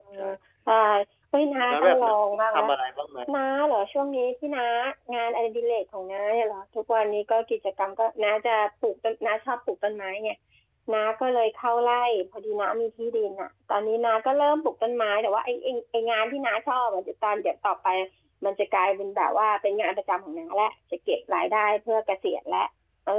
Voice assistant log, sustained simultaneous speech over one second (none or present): none